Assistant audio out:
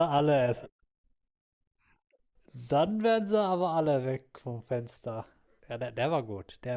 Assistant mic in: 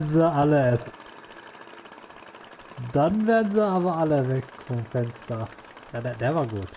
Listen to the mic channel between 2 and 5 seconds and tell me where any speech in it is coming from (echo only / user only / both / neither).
echo only